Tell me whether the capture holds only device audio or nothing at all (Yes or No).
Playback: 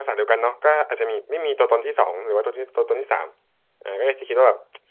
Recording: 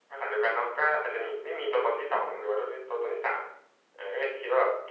Yes